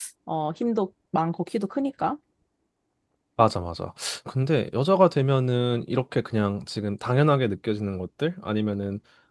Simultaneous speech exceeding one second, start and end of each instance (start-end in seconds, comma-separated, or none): none